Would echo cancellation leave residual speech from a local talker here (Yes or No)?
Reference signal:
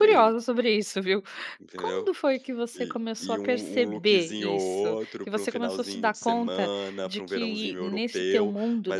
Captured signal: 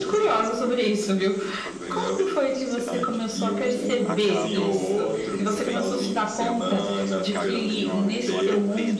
Yes